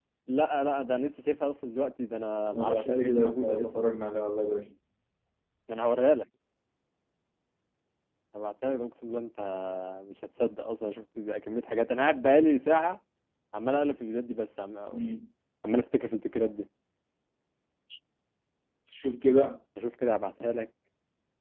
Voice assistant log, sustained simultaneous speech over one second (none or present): present